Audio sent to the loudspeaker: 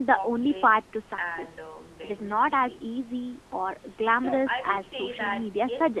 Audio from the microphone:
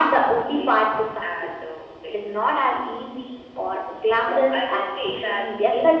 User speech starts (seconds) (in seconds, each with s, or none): none